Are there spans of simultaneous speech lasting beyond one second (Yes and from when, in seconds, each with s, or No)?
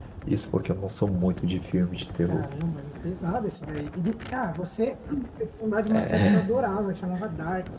No